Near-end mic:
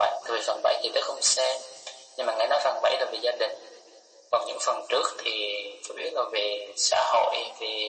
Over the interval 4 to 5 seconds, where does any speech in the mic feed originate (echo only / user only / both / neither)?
echo only